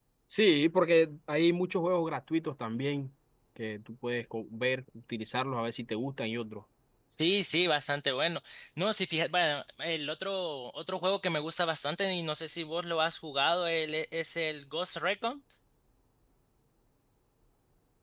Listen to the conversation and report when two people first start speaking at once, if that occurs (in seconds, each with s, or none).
none